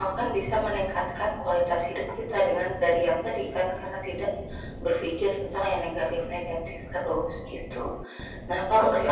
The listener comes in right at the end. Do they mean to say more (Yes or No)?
No